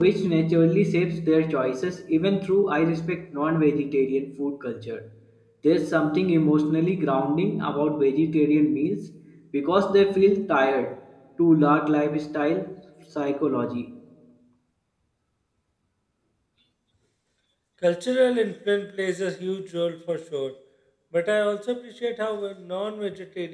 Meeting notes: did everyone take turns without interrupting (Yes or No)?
Yes